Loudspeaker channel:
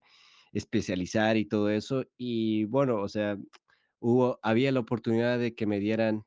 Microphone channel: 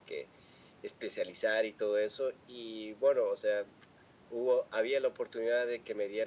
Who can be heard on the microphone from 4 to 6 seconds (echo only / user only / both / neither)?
echo only